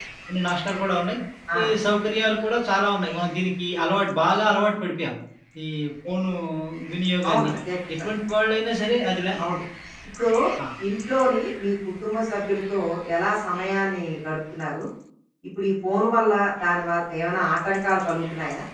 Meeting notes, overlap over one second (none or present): none